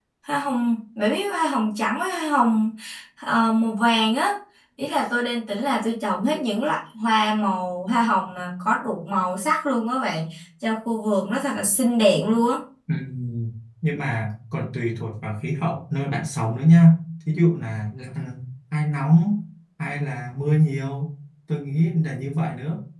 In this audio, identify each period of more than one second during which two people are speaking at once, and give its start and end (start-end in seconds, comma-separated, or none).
none